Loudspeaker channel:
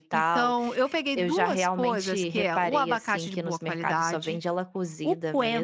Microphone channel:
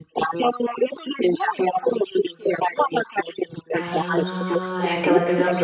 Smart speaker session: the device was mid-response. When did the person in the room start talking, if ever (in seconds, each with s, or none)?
3.7 s